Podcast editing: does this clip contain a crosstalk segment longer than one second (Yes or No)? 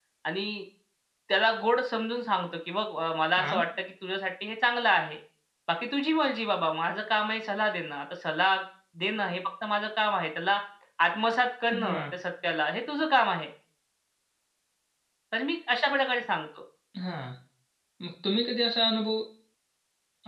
No